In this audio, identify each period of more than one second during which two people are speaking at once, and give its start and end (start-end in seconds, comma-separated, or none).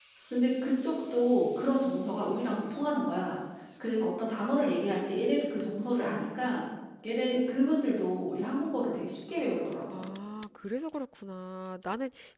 none